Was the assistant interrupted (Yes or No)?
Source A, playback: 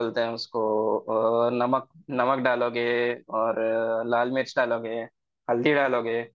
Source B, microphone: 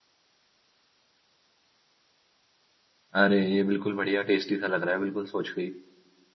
Yes